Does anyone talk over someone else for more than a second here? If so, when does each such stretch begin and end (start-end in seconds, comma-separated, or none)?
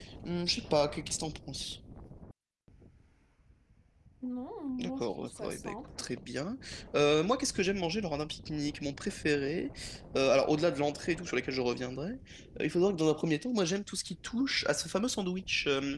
4.8-6.0